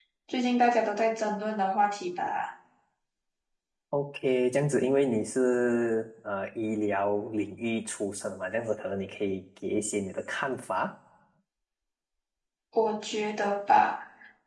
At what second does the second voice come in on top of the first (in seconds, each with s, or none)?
none